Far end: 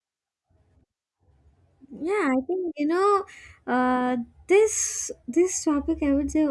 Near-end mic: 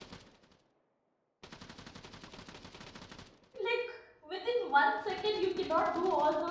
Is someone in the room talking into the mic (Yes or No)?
Yes